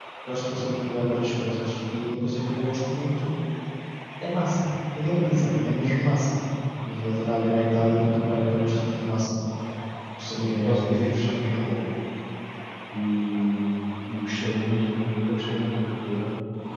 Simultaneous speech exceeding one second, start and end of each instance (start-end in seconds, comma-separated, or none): 10.3-11.6